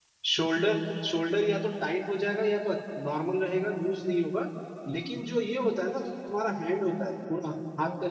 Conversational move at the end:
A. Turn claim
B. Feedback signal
B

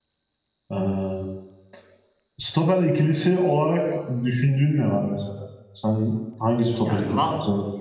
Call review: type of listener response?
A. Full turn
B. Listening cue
A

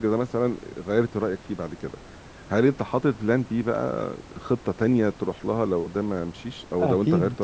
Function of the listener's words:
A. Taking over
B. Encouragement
A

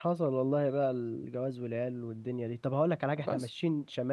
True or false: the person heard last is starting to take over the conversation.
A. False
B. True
A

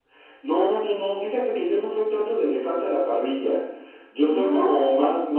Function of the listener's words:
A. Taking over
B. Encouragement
B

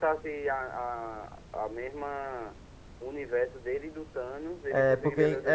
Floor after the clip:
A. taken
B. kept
A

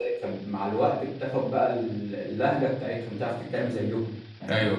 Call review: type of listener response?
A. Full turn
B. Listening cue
A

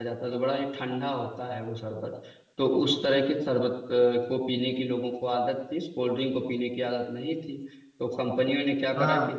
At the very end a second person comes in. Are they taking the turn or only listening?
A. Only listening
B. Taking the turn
B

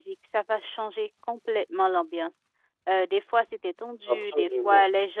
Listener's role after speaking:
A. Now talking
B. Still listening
B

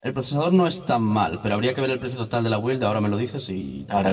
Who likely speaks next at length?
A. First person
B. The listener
B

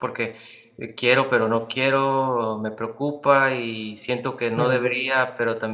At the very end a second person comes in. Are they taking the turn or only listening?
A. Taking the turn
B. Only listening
B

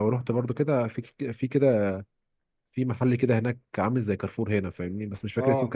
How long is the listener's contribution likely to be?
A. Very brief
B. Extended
A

